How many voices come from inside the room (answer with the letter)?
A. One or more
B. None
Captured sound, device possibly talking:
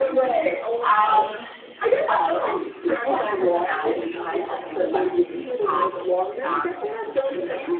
A